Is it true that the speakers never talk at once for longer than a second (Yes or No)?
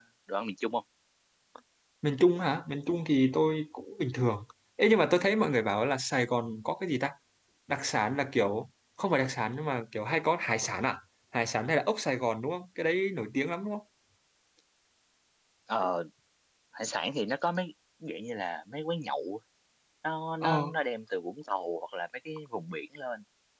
Yes